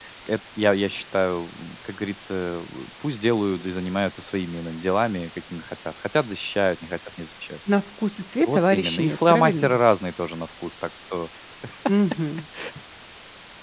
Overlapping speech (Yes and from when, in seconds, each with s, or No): Yes, from 8.5 s